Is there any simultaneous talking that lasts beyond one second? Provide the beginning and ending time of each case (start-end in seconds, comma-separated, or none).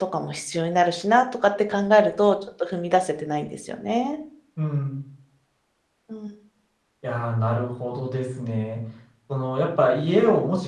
none